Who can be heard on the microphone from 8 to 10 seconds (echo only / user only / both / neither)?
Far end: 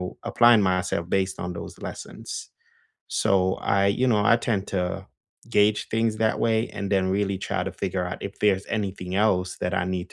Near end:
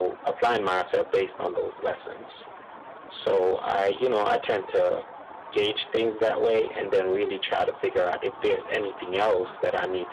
echo only